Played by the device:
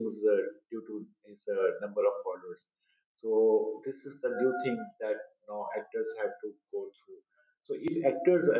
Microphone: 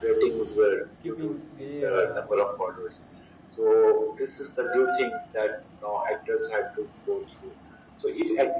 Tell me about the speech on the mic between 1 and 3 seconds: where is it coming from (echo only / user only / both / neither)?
both